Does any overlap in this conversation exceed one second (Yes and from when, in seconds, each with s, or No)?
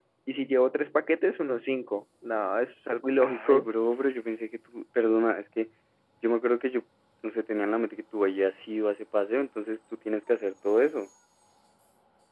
No